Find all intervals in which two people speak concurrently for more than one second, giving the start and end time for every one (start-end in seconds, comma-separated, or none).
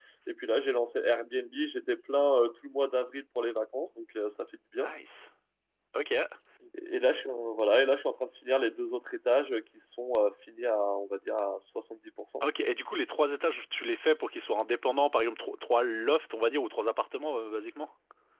none